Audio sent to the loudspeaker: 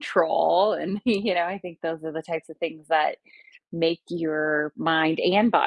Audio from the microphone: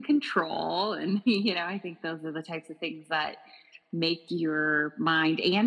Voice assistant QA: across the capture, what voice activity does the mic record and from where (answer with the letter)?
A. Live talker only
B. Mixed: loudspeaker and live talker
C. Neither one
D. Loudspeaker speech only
D